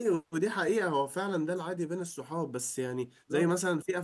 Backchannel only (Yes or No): Yes